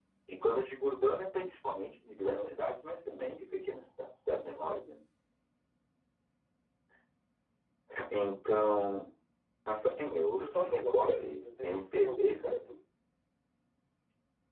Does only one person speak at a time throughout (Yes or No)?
No